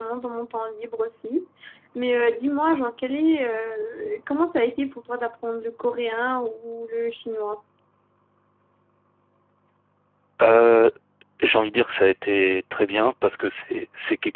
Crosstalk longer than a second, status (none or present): none